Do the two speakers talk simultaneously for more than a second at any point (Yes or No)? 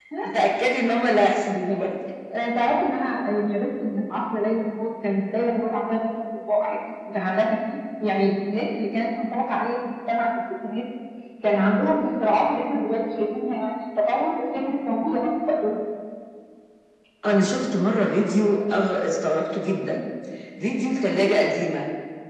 No